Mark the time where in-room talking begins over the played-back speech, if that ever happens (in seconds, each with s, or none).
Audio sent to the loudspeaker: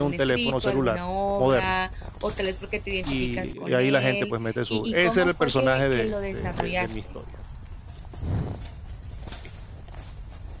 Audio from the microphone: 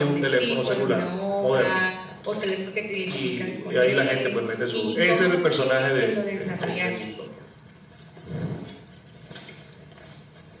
none